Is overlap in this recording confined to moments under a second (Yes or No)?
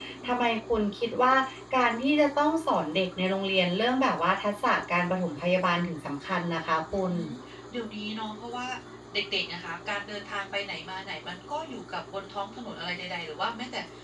Yes